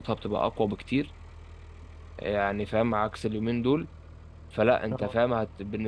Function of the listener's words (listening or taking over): listening